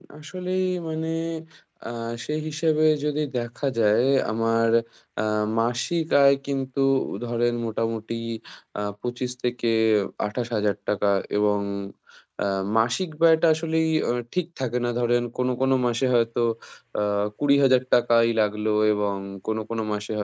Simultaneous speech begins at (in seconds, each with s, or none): none